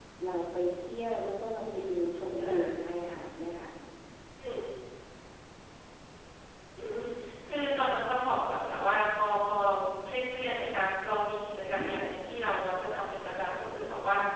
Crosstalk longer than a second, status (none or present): none